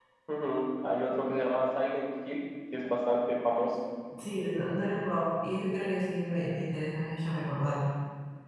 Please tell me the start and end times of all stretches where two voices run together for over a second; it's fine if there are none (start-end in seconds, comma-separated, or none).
none